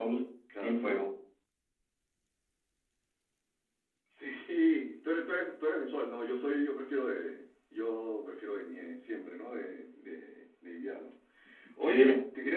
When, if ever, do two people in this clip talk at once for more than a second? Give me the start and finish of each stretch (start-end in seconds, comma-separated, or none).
none